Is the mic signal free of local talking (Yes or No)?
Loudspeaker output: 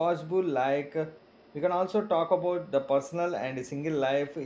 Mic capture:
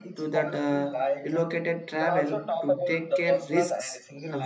No